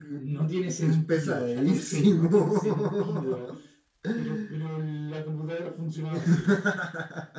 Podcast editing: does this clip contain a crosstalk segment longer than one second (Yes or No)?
Yes